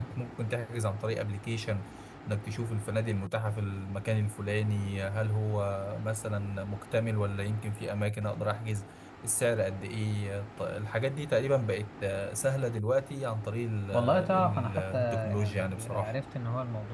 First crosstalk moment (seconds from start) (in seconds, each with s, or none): 13.9 s